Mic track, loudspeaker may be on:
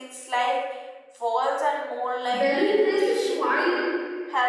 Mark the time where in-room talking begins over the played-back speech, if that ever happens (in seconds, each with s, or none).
2.3 s